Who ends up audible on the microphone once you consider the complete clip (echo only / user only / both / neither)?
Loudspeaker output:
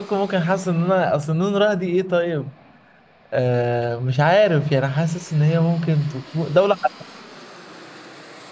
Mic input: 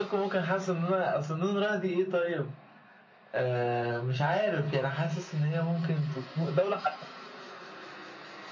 echo only